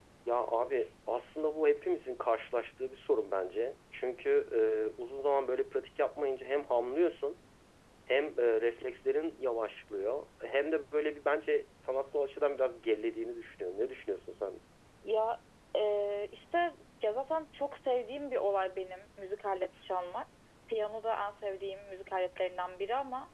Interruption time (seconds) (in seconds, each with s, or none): none